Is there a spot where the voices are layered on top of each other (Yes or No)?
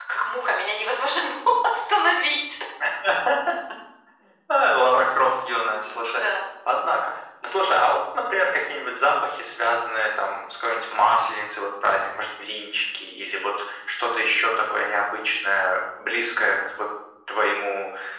No